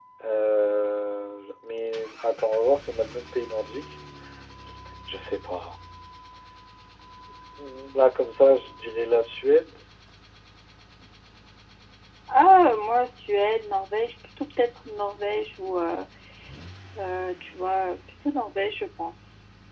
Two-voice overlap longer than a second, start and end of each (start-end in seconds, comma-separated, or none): none